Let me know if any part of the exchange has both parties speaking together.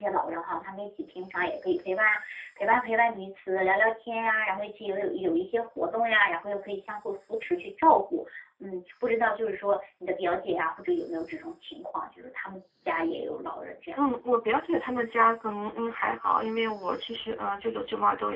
No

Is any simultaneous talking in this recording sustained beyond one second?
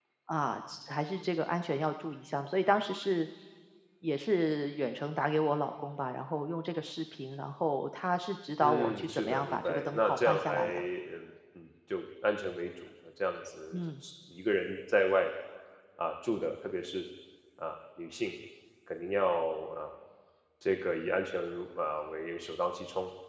Yes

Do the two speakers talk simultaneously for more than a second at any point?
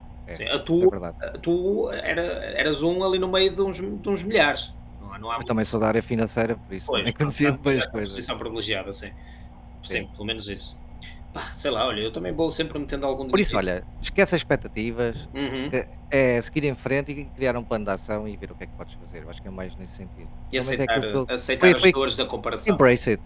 Yes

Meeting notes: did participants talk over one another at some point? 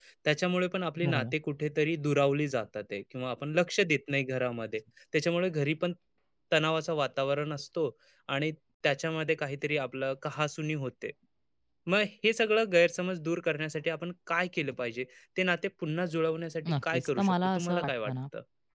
Yes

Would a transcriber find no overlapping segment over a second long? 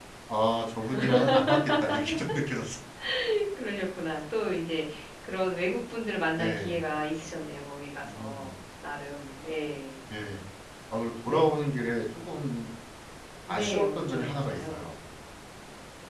No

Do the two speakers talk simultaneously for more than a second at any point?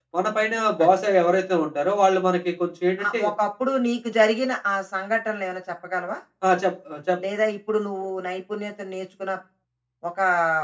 No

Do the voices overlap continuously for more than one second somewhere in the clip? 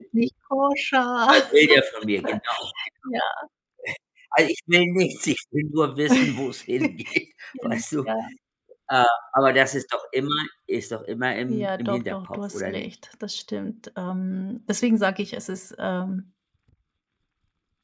Yes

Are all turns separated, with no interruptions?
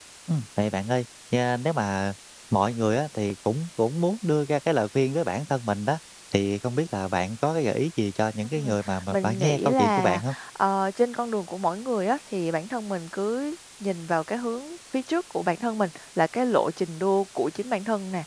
No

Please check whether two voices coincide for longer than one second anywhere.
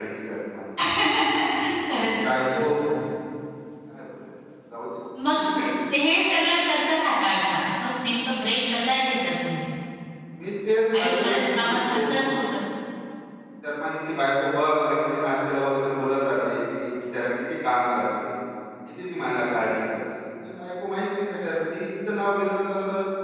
Yes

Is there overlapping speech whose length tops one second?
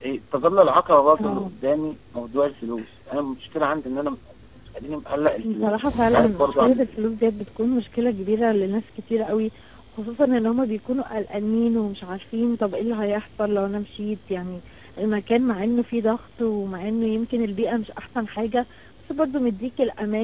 Yes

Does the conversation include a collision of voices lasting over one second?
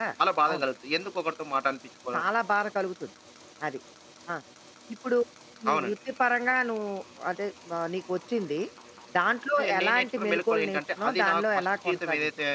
Yes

